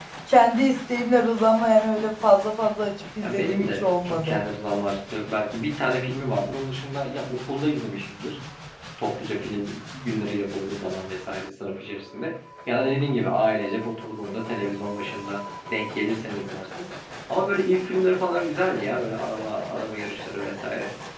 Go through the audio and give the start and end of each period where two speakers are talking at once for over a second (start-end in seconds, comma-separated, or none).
3.2-4.4